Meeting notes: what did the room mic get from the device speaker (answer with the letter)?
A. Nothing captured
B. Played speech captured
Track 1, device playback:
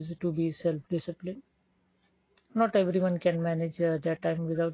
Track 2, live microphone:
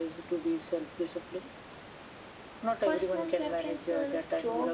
B